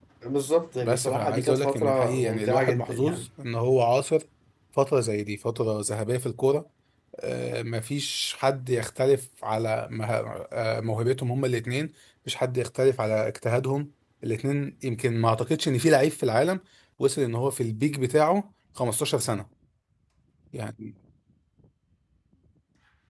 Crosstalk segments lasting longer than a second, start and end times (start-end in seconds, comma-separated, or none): 0.8-3.2